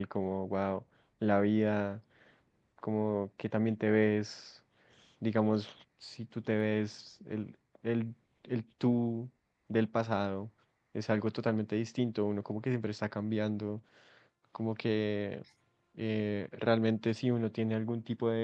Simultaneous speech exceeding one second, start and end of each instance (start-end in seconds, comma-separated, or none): none